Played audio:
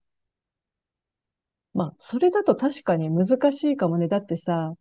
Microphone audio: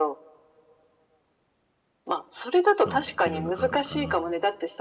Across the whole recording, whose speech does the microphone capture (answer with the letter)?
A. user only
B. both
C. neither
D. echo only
B